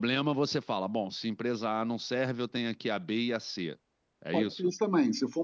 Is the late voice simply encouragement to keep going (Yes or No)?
No